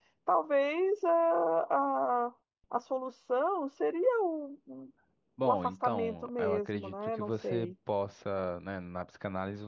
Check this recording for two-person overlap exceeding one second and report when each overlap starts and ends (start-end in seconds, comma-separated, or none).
5.4-7.7